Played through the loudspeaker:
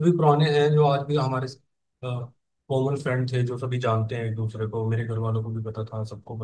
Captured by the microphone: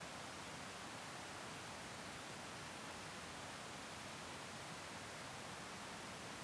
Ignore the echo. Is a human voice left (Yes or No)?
No